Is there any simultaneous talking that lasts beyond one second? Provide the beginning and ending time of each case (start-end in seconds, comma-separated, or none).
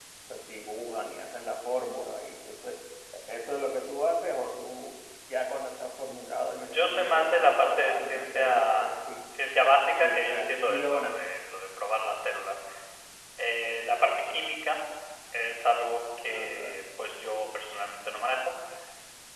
6.7-8.9, 9.9-11.2